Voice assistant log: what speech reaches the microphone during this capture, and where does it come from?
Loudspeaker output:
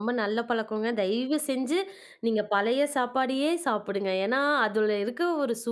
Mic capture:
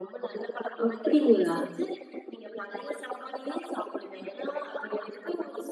both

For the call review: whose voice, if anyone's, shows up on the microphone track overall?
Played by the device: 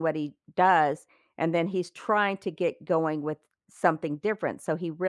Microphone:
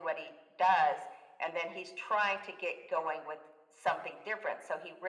echo only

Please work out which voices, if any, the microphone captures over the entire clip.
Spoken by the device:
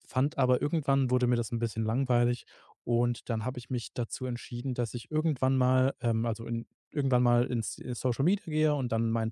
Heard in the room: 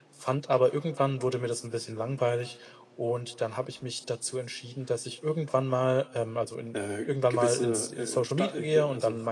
both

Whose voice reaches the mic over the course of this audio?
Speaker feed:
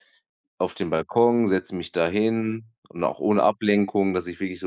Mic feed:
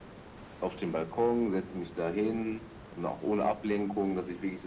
echo only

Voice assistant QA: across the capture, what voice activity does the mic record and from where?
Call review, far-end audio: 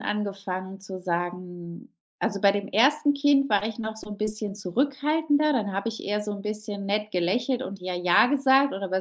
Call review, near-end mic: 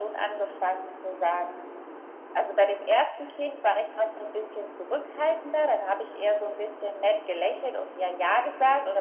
echo only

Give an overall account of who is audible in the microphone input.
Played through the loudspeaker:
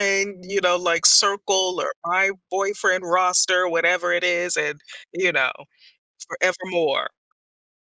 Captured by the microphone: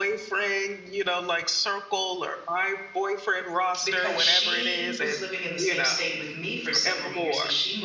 both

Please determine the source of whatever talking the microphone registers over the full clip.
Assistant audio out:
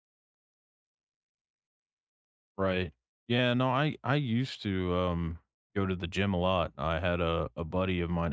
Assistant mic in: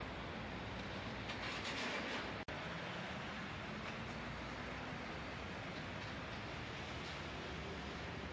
neither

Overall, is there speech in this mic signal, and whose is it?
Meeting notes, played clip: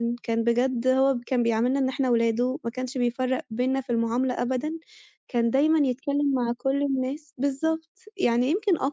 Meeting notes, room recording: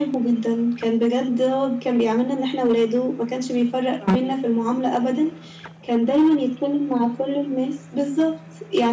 both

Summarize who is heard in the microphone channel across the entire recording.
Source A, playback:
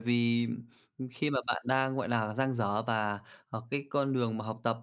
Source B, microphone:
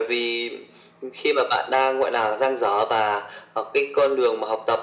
echo only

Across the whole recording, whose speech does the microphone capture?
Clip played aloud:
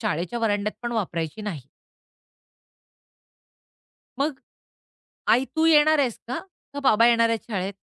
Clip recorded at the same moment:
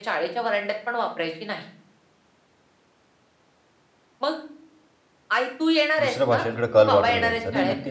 both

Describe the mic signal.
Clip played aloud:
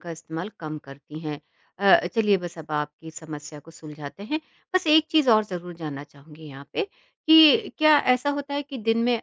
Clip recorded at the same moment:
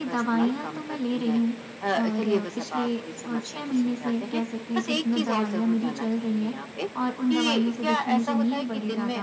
both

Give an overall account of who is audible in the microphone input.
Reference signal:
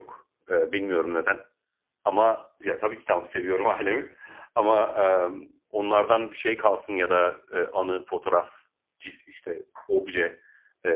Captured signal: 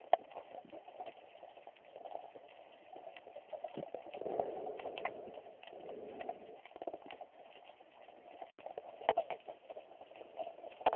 neither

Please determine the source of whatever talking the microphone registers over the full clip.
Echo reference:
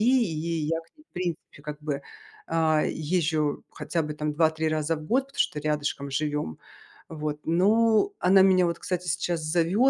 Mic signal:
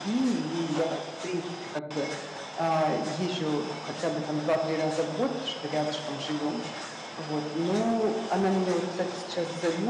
echo only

